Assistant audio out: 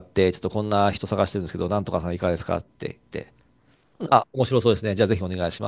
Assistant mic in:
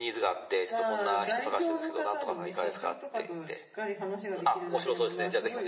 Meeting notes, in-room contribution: present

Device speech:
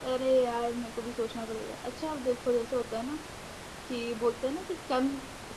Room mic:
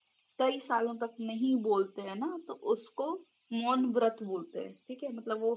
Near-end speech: present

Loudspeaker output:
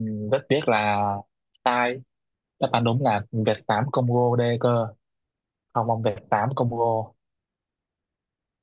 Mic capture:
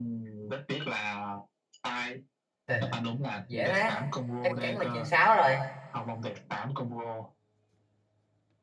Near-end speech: present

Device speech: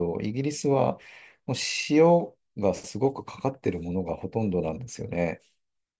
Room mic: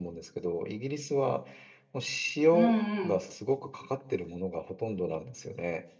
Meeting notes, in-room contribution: present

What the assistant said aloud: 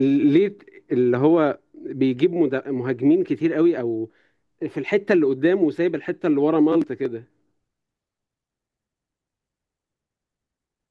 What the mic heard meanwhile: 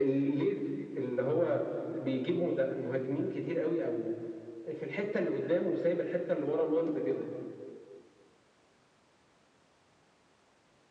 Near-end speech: none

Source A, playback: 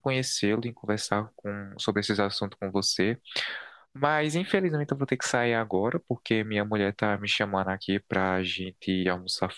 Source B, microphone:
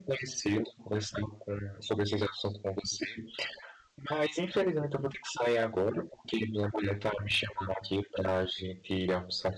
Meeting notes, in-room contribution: none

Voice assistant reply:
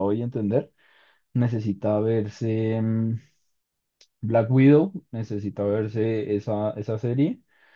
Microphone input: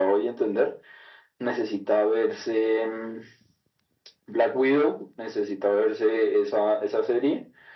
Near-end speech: none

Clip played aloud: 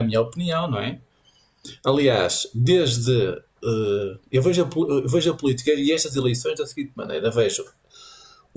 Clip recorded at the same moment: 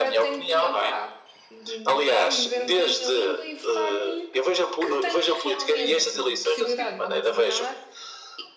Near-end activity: present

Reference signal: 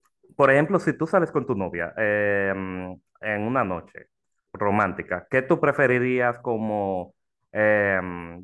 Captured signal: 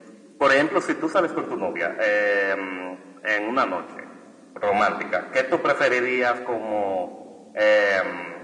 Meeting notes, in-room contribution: none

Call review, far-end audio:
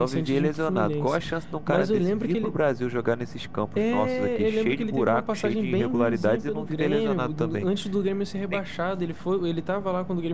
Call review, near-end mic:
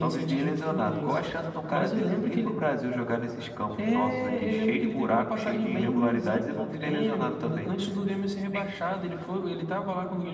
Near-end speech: none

